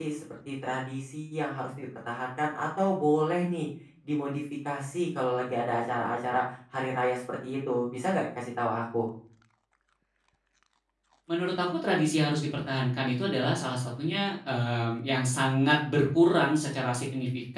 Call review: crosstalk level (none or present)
none